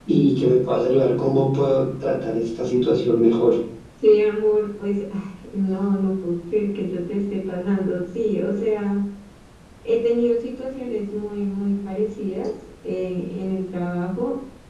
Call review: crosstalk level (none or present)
none